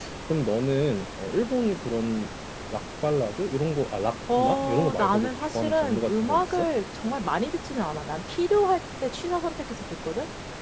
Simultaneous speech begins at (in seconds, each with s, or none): 4.3 s